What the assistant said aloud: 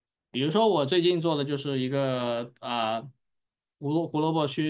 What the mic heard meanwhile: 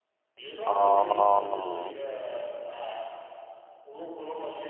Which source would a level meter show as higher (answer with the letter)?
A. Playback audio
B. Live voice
B